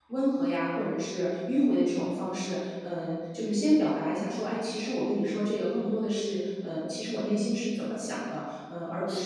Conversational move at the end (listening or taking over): listening